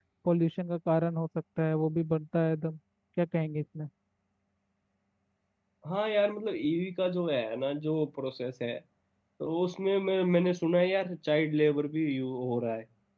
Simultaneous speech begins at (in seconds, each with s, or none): none